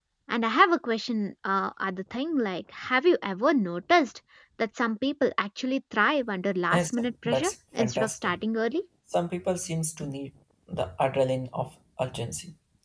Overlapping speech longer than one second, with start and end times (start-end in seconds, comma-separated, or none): 6.7-8.3